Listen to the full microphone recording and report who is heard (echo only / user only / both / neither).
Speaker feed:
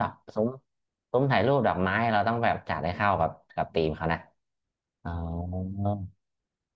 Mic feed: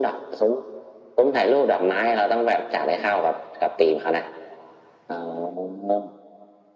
echo only